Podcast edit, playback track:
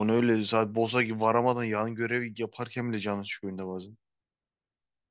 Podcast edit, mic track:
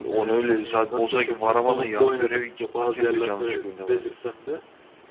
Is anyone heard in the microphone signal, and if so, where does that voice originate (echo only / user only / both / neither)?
both